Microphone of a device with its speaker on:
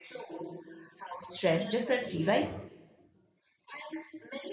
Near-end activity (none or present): present